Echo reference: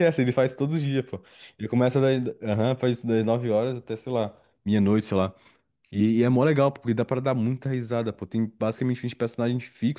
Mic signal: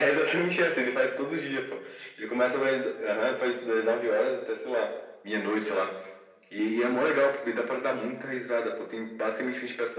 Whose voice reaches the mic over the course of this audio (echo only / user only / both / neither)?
echo only